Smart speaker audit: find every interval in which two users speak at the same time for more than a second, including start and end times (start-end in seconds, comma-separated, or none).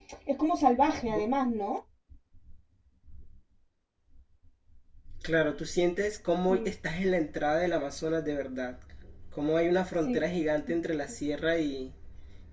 none